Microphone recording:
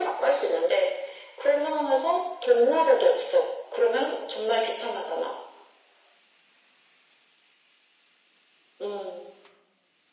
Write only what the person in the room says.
none

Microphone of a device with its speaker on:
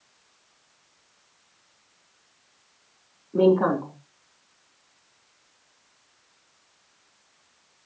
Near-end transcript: Me encanta,

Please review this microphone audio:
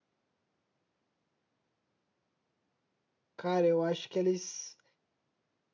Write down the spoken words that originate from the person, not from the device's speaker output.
Cara, eu acho que eles

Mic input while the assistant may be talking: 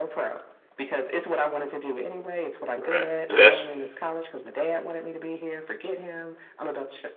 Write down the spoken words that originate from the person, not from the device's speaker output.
right. Yeah, that's

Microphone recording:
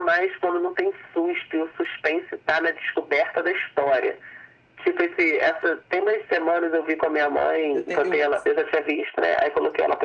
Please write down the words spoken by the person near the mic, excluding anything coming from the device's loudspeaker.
Eu tenho. Eu...

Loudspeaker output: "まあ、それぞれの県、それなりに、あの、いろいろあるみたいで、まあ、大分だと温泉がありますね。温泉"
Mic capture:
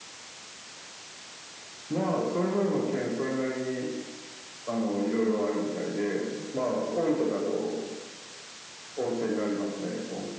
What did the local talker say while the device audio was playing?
none

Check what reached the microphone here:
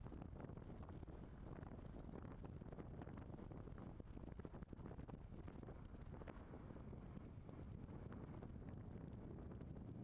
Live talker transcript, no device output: none

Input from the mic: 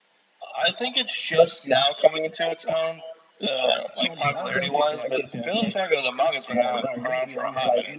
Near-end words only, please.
none

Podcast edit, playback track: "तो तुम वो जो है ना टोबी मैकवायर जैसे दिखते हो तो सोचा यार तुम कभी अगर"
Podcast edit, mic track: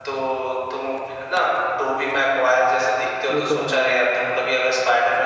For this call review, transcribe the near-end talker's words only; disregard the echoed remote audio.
वो तो रहेगा ही भाई

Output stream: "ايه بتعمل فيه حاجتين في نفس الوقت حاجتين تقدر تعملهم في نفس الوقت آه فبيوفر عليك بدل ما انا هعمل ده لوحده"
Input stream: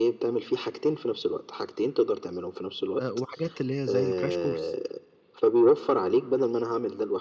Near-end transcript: آه، وحاجات اللي هي زي الكراش كورس

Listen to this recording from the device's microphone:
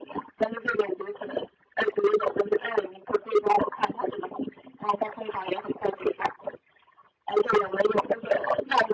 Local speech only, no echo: none

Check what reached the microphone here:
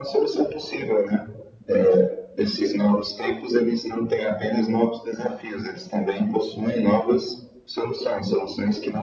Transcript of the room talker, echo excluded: none

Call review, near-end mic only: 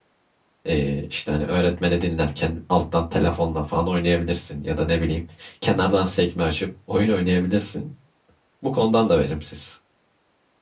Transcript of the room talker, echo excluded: E, işte hani öğretmeni dinlerken alttan telefonla falan oynayabilirsin ya da ne bileyim kenardan sekme açıp oyun oynayabilirsin. Bu konudan da verimsiz.

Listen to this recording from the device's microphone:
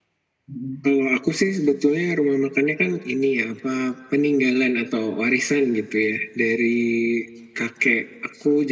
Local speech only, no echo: mm

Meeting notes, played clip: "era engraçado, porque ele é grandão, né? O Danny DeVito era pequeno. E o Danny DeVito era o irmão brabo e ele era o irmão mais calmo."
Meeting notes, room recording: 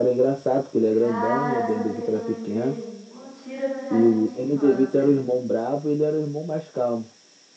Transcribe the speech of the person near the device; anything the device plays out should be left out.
Cara, sabe o que que eu lembrei? Um tiro no jardim de infância.

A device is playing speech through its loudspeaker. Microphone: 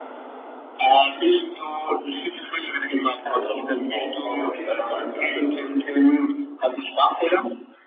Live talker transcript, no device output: Auch, auch. Aber man kennt ihn vor allem für andere Filme.

